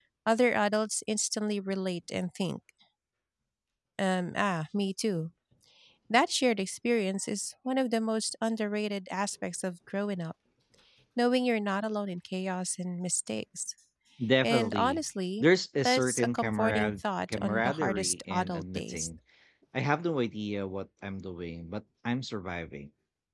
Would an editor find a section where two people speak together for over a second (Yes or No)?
Yes